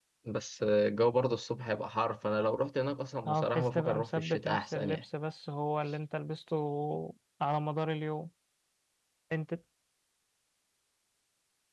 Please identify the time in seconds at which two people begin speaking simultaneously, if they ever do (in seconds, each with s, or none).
3.2 s